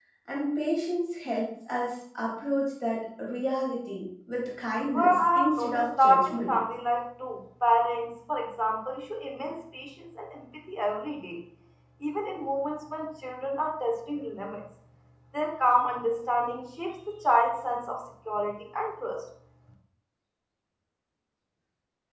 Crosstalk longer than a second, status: present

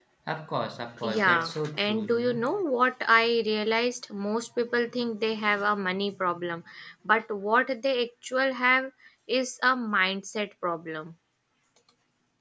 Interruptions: present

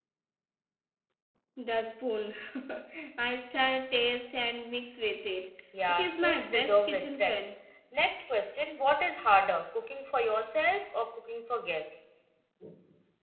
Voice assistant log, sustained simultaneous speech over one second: present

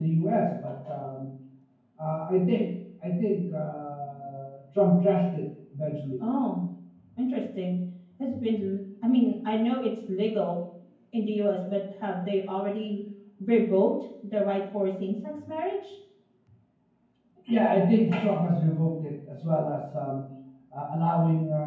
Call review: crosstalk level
none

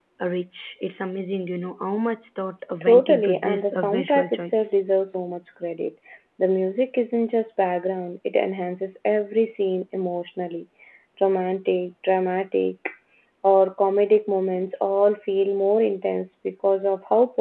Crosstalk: present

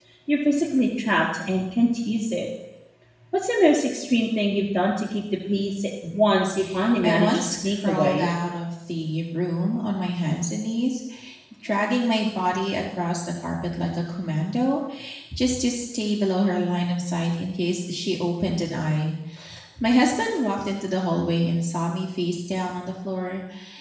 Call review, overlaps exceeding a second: present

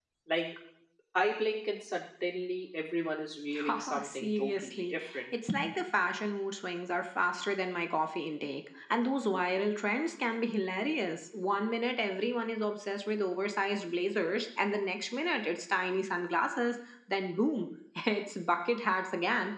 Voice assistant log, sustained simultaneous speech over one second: present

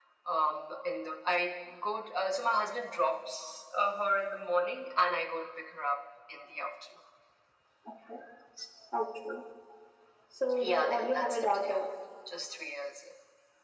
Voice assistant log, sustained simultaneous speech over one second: present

